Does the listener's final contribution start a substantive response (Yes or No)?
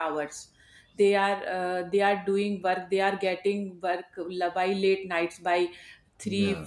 No